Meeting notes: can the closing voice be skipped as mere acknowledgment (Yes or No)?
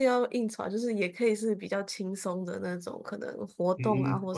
No